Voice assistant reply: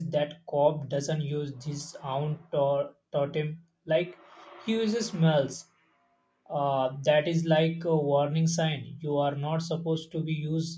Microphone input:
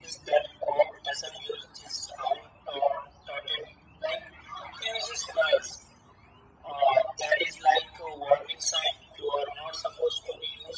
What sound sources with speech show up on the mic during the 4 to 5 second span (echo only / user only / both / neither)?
echo only